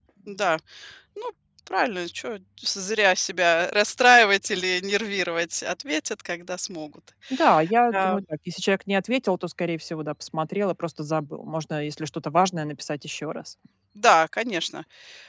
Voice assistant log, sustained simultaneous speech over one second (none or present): none